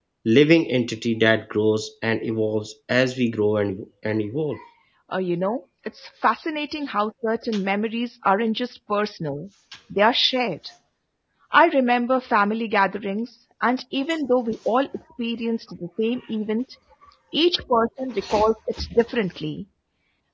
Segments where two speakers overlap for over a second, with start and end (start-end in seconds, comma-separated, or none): none